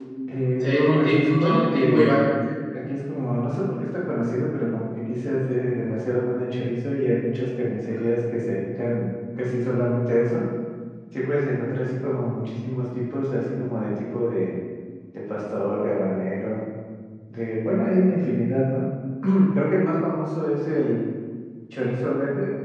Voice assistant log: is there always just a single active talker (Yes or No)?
No